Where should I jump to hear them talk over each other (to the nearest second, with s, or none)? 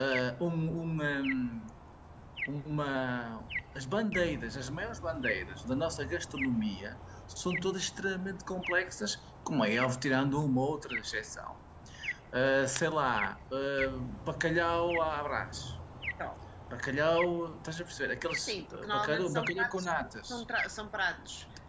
18 s